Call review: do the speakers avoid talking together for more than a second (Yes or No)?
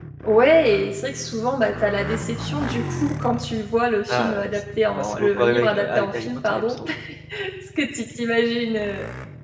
No